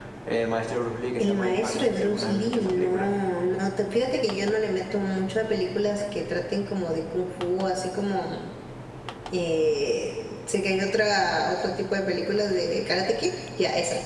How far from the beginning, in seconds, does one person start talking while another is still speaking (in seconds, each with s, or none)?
1.2 s